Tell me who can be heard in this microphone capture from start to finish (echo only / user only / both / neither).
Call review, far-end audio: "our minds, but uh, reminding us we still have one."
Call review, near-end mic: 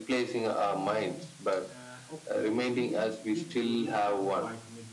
both